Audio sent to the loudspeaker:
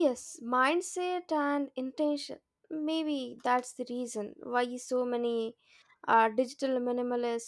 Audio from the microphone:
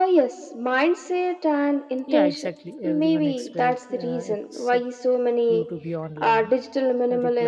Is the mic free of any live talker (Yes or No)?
No